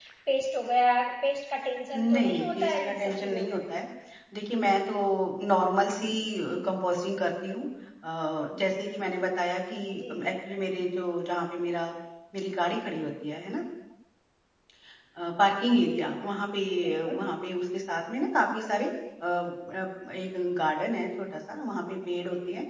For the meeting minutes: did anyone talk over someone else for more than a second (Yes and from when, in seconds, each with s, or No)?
Yes, from 1.9 s